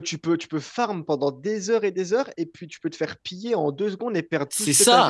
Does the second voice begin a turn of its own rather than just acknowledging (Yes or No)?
Yes